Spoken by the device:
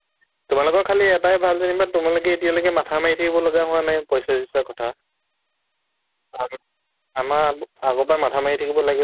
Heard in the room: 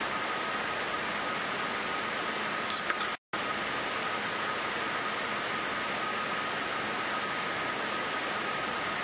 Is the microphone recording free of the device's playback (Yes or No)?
Yes